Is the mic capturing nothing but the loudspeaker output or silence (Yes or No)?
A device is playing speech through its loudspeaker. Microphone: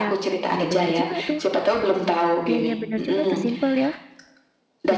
No